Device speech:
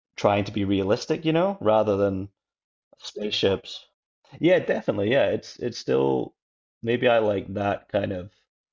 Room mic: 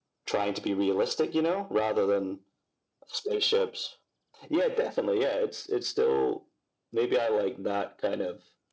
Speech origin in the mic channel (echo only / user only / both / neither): echo only